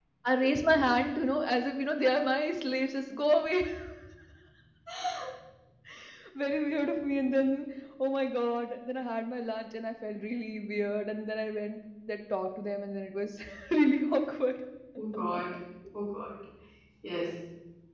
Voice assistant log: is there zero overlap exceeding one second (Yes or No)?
Yes